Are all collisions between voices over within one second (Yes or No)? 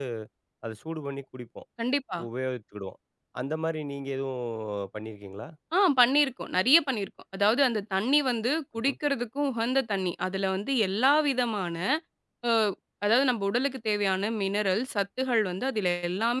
Yes